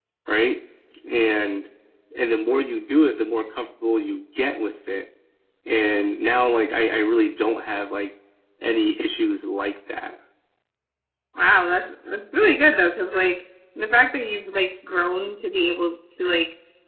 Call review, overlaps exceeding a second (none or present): none